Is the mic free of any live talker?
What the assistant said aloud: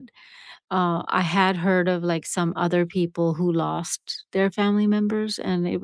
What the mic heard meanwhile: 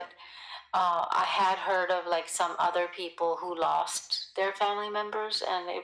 Yes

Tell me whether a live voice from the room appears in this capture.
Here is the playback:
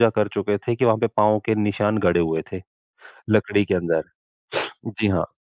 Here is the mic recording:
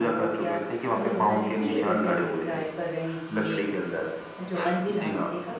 Yes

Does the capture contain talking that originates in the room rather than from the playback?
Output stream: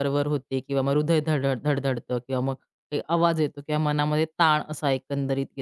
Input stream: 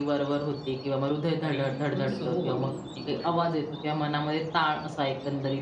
Yes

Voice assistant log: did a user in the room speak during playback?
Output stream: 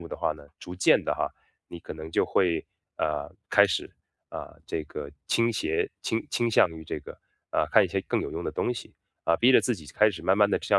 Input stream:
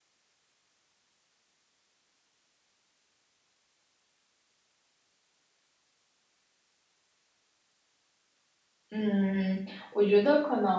Yes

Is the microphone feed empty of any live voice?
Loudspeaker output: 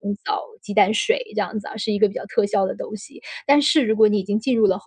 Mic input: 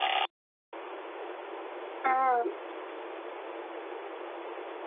No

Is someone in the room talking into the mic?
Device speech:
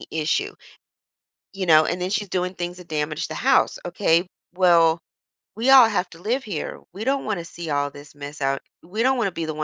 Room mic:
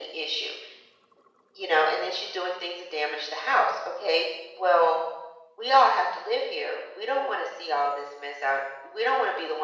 No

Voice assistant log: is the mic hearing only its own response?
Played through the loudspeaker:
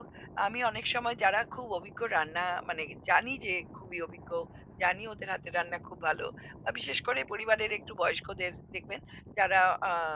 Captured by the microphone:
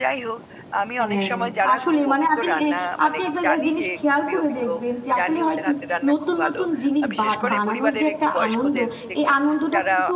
No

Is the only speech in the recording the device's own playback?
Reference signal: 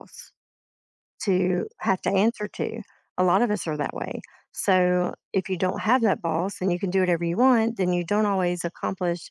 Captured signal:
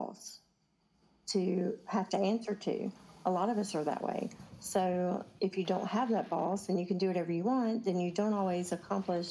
Yes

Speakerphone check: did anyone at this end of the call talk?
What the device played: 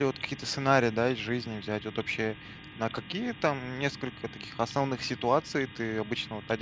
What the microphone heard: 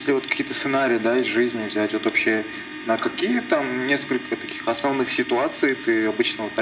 No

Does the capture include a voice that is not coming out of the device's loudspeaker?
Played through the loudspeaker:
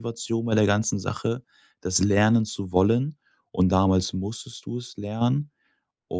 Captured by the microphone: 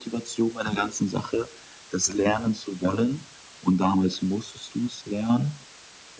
No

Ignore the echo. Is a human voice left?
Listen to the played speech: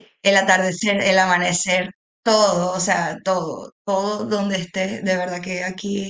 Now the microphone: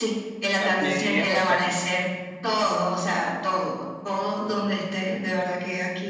Yes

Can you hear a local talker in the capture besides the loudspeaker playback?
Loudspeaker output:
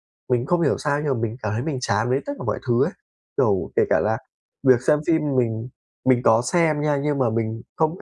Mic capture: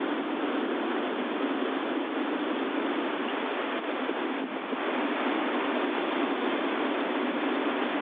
No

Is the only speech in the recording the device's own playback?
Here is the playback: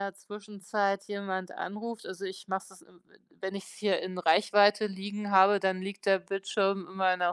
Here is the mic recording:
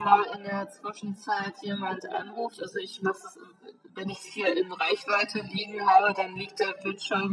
Yes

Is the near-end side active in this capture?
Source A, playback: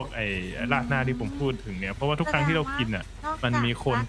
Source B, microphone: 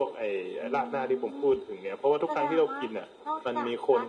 No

